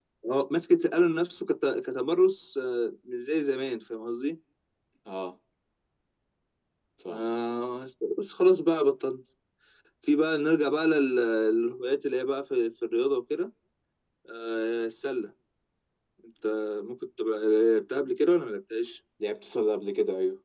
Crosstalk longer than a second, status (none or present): none